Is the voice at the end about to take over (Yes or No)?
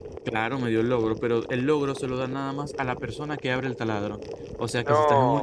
No